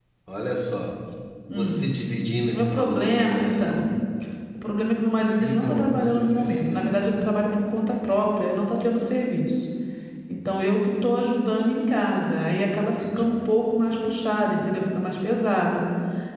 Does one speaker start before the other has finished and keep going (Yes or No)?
Yes